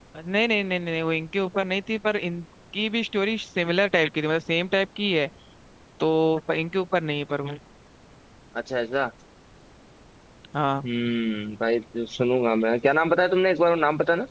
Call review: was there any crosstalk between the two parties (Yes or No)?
No